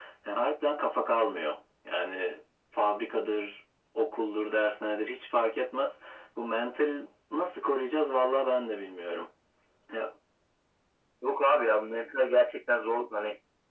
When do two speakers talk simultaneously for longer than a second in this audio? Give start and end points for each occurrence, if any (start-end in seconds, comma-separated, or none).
none